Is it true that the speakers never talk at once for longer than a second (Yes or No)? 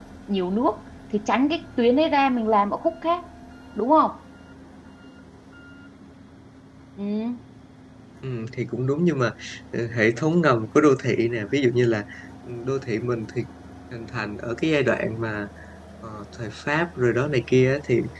Yes